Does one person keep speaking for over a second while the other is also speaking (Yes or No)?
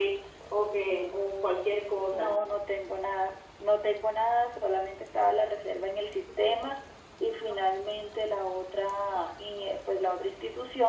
No